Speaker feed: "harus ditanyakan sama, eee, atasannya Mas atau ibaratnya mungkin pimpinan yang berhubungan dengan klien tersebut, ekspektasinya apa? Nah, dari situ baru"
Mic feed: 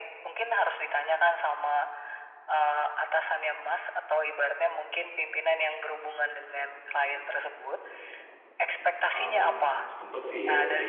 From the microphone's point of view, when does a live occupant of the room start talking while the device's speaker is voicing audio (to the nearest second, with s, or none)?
9 s